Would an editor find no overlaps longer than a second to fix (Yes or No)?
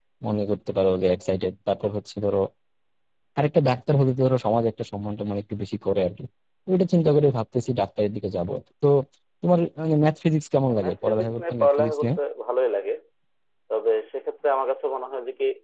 No